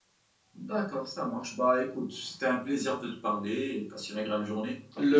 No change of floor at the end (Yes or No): No